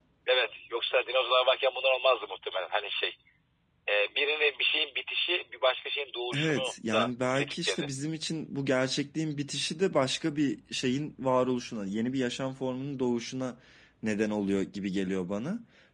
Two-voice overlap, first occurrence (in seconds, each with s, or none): 6.3 s